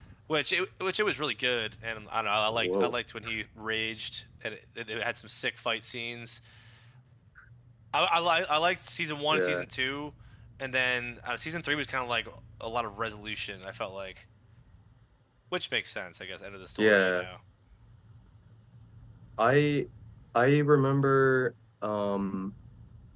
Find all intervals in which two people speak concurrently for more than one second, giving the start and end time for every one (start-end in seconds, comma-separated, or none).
none